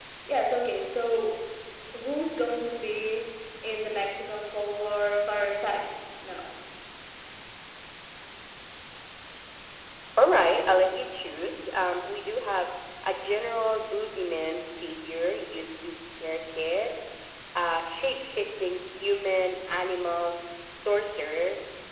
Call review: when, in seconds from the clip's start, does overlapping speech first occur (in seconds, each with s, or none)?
none